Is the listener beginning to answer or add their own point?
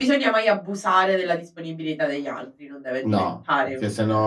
Yes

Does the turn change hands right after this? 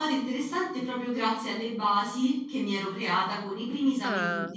No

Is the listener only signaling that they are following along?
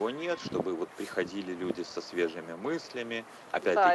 No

